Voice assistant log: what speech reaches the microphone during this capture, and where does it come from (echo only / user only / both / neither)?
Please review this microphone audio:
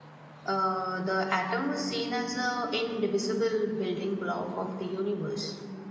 user only